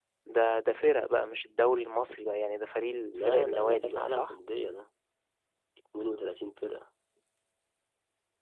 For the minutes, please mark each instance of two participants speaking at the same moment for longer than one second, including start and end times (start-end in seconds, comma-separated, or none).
3.0-4.3